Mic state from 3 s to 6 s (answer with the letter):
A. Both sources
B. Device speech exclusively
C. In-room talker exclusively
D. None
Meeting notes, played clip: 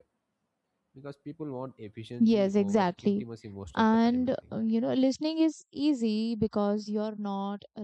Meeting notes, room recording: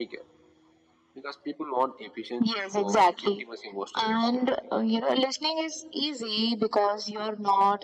B